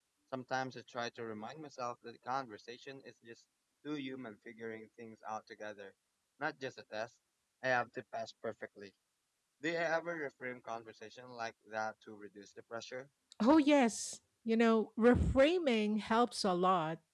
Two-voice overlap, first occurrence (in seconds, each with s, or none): none